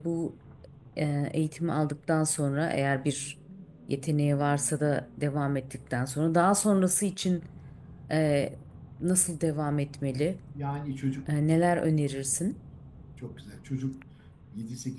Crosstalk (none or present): none